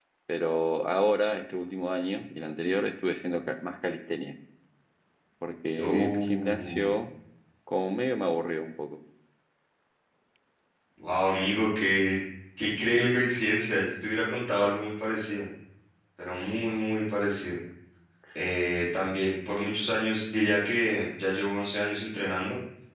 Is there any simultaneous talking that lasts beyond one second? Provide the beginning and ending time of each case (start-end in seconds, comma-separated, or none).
5.8-7.0